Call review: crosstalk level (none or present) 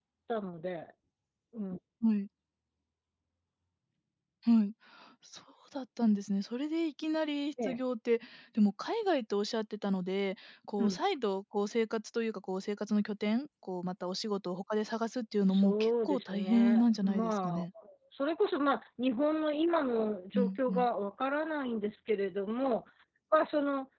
present